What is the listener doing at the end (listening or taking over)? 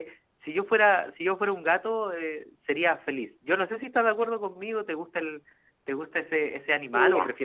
taking over